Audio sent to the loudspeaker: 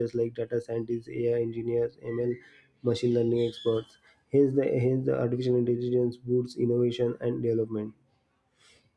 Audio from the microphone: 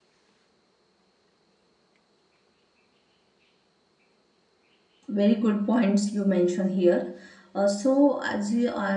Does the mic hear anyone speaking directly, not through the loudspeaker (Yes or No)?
Yes